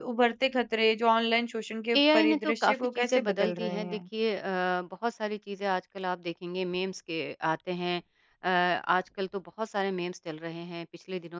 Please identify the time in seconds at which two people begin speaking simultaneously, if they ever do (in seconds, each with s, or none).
1.9 s